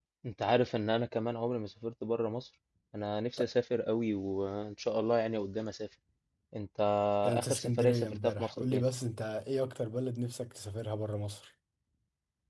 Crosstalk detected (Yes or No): Yes